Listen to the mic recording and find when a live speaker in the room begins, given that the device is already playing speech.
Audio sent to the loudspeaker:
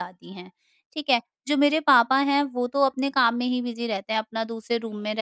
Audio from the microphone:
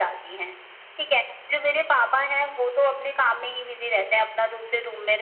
none

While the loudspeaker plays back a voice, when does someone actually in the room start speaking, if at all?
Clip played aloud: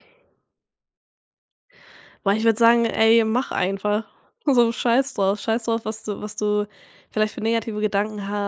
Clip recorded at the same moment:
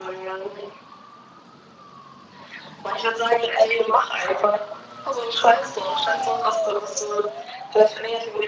none

